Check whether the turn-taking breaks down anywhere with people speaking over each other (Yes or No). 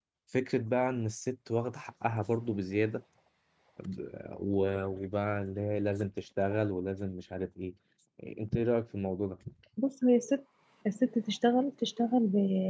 No